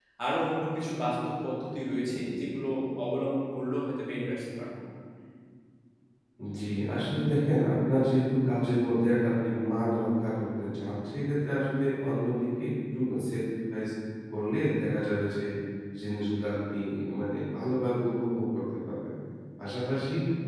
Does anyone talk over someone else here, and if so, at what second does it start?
none

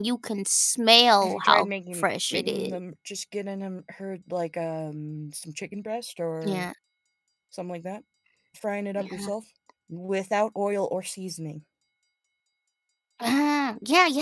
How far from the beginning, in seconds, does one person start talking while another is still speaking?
1 s

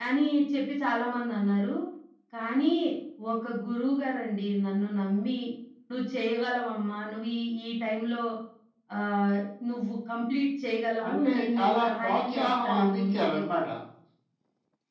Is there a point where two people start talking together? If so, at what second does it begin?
11 s

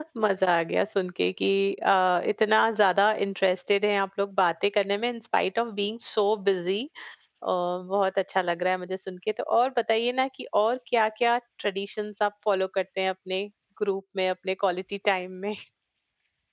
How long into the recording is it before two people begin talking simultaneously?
none

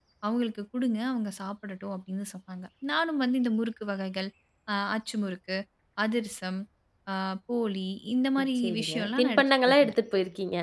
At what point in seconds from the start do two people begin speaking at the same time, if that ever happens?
8 s

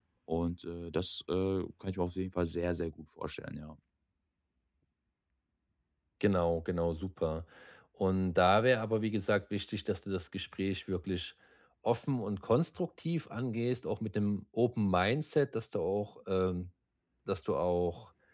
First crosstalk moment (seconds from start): none

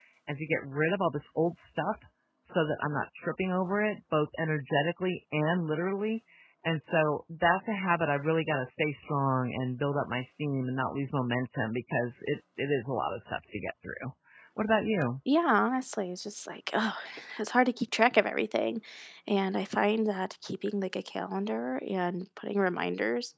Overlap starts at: none

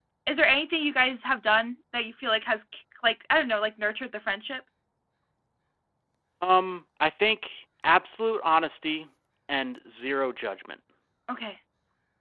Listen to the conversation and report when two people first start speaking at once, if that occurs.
none

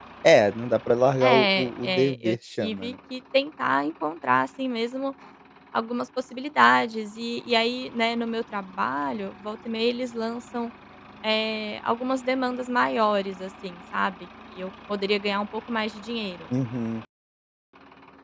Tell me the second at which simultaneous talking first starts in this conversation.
1 s

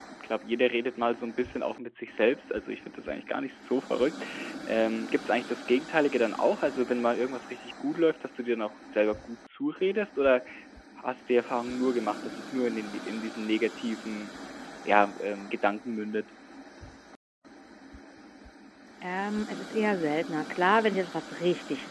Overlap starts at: none

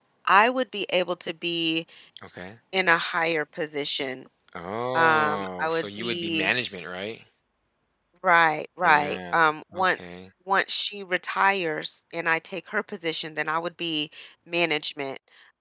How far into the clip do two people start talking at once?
5 s

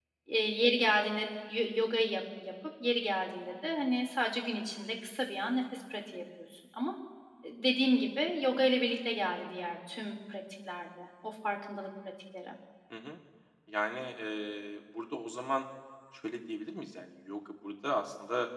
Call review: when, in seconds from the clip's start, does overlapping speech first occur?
none

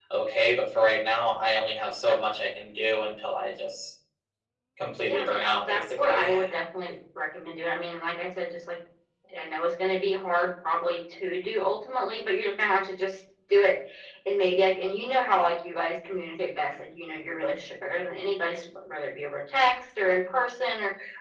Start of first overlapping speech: 5 s

